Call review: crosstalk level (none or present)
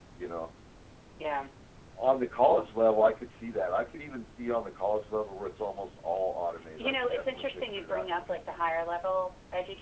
present